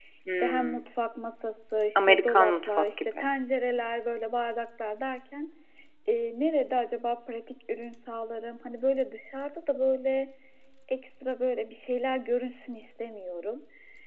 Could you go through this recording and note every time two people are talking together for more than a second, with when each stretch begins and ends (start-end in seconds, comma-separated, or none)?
1.9-3.3